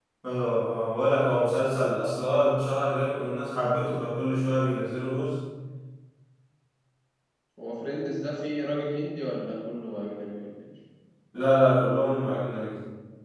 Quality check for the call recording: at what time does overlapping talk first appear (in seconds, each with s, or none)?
none